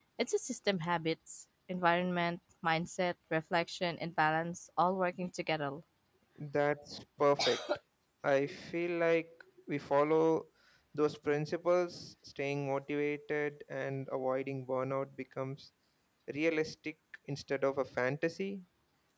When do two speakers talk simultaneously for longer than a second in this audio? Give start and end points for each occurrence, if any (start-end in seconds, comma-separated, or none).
none